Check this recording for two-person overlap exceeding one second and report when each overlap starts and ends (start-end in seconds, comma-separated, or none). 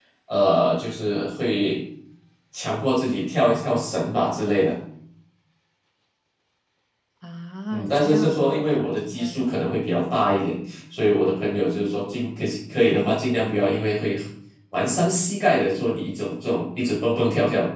7.7-9.7